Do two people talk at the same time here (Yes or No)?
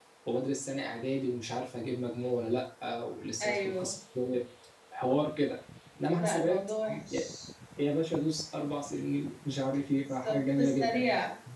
Yes